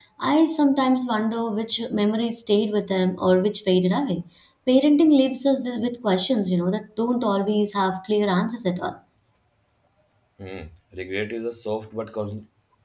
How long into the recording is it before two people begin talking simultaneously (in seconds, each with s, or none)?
none